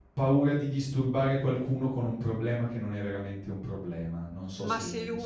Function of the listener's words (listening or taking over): taking over